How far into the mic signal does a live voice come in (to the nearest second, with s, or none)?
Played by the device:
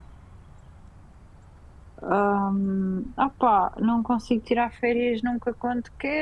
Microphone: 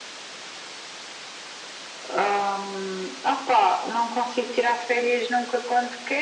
none